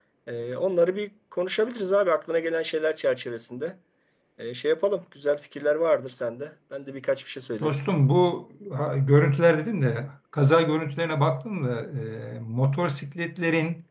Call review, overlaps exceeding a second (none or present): none